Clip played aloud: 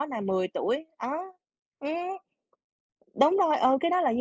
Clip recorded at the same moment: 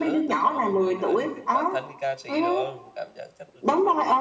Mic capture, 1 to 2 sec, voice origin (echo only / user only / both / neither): both